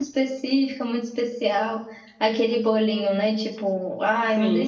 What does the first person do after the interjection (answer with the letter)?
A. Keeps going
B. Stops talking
A